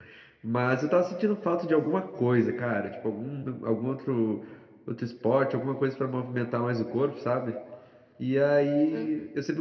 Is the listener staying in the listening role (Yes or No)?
Yes